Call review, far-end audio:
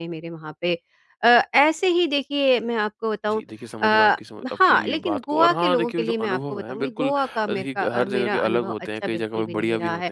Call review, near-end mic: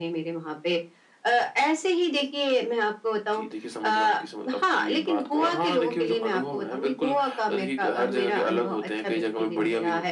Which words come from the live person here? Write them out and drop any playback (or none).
none